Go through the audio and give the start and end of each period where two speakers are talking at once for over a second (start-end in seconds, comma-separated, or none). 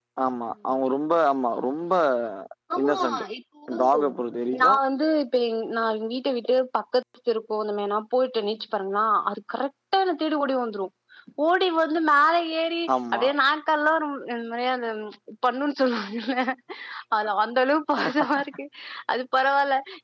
none